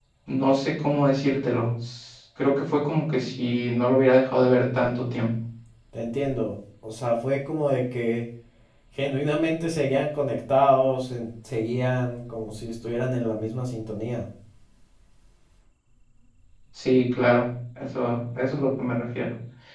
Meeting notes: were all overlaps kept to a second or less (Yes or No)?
Yes